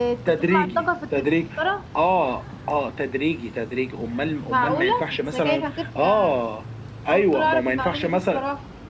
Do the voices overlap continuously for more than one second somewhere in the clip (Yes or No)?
Yes